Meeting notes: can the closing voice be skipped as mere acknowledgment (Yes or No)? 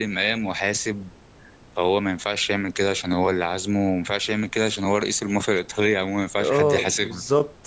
No